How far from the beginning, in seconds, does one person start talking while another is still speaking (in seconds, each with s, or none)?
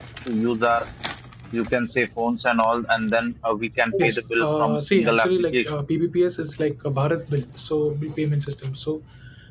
3.9 s